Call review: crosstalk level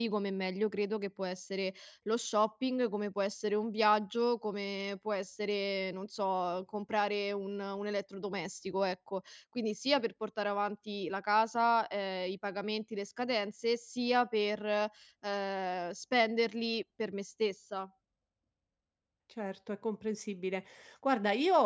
none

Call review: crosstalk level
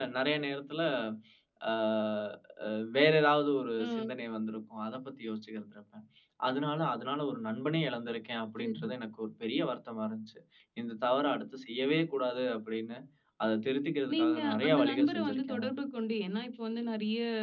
present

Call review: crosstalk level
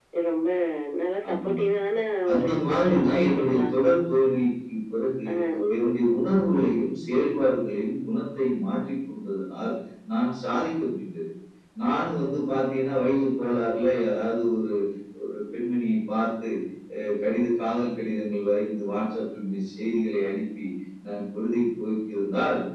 present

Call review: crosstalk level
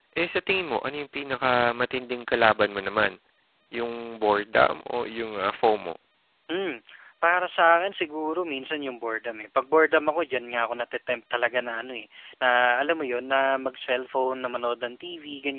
none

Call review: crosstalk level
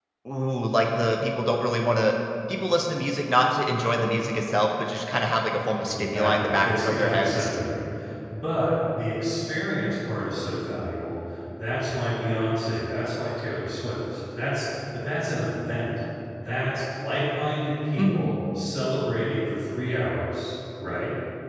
present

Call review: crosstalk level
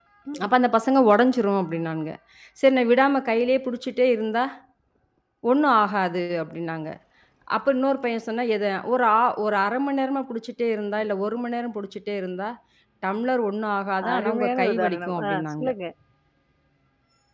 present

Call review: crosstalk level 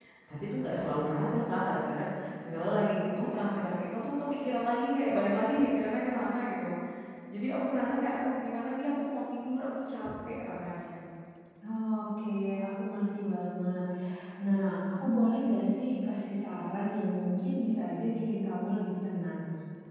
none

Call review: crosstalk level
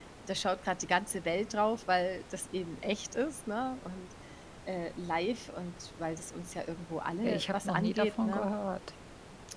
present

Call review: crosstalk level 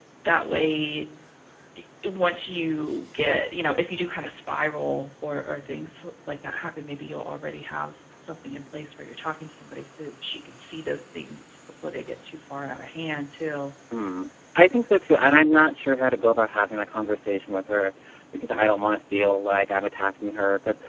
none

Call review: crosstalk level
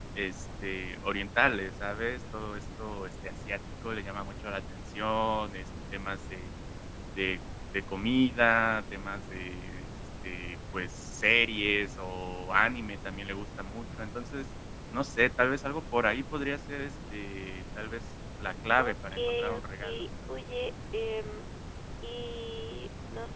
present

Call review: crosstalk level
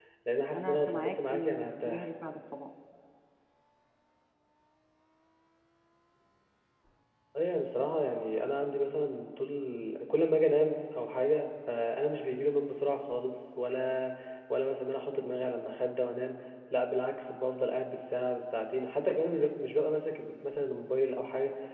present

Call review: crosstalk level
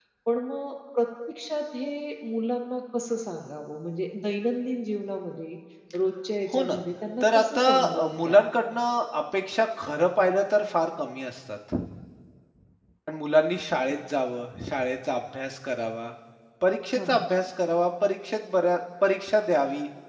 present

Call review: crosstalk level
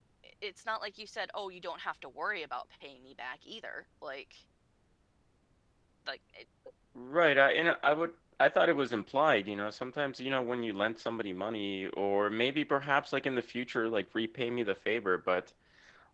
none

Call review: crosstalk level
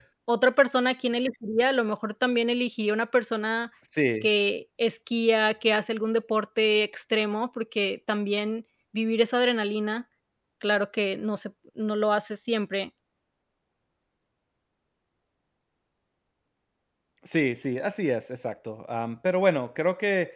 none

